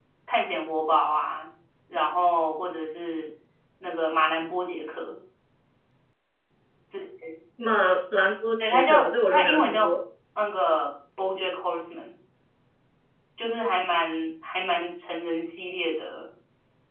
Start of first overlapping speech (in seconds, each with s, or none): 8.6 s